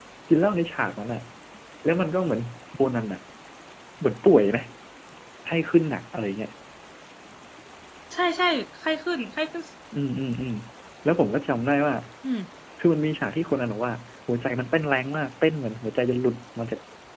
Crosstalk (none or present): none